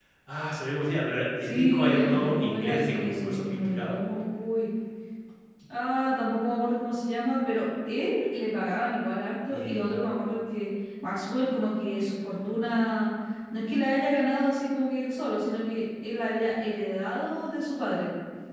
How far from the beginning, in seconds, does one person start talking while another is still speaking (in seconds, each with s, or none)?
1.4 s